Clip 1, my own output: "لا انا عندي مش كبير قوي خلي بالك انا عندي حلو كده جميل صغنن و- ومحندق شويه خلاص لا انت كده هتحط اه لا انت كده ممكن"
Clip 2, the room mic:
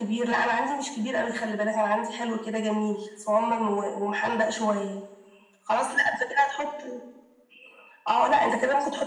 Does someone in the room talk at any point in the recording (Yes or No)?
No